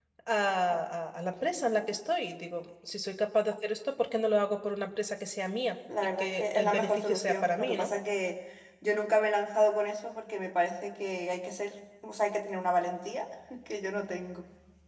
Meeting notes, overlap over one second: present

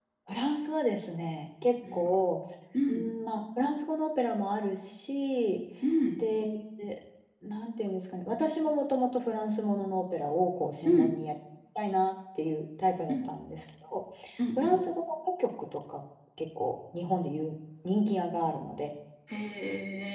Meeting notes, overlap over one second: none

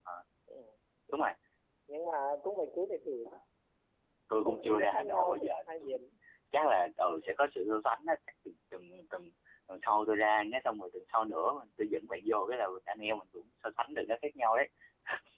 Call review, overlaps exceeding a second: present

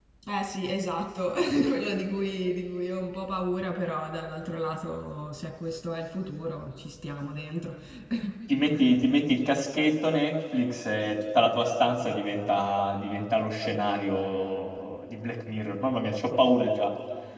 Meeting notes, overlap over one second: none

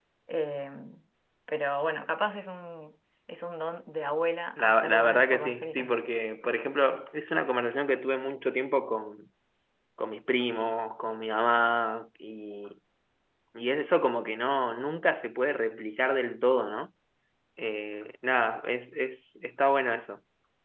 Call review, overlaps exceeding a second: present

